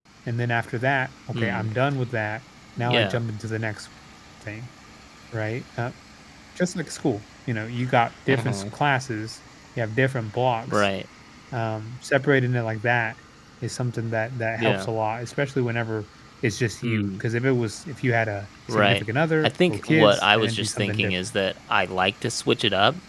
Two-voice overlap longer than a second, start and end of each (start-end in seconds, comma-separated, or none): 19.4-21.3